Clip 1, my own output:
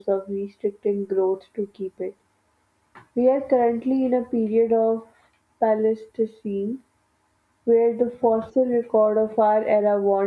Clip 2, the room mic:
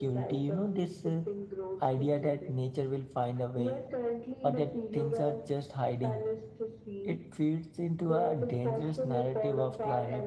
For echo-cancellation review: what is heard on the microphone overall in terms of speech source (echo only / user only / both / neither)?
both